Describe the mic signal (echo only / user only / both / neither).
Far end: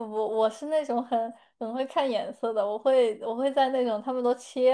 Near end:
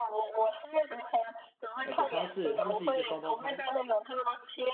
both